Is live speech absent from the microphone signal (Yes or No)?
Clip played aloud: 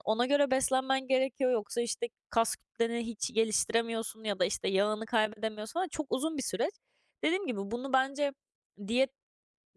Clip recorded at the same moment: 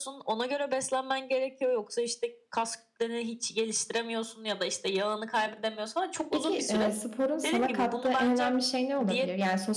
No